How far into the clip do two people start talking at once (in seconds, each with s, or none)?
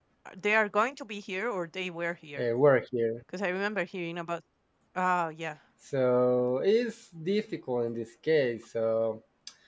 none